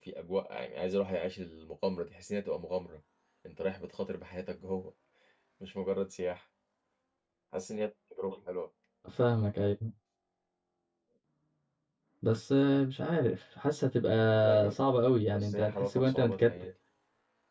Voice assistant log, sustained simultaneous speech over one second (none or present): present